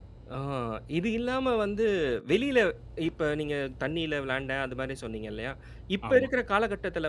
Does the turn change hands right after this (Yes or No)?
No